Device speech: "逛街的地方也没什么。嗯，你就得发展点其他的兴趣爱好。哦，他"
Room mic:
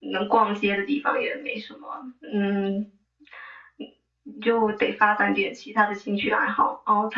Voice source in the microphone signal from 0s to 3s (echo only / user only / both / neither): echo only